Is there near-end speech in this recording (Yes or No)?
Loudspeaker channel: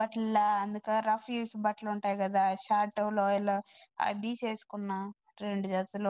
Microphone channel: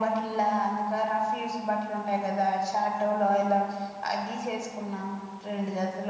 No